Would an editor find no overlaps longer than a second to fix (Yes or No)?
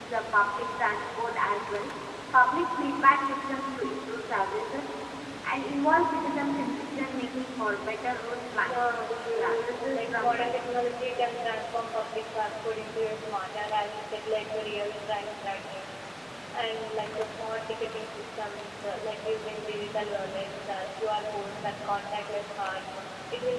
No